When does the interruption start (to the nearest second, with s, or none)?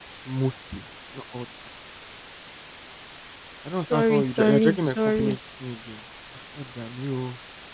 4 s